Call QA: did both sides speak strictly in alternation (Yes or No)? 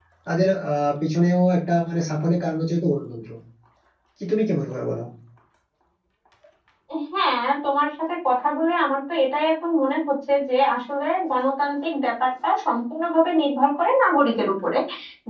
Yes